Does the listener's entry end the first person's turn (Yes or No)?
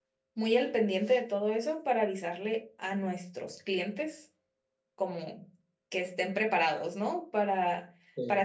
No